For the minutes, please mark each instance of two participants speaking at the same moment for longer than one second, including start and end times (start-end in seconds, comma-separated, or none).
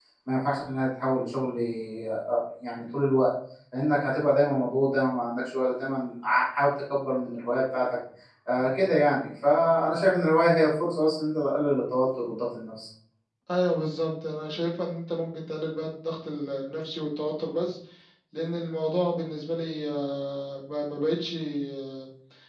none